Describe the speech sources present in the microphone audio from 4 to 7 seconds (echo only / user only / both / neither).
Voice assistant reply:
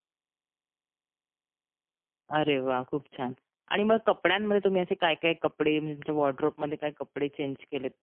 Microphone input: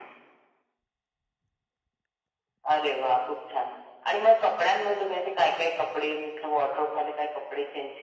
echo only